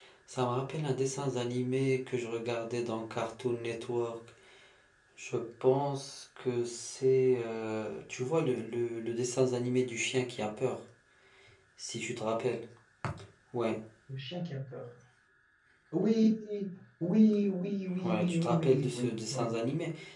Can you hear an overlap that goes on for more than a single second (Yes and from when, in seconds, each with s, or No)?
Yes, from 17.9 s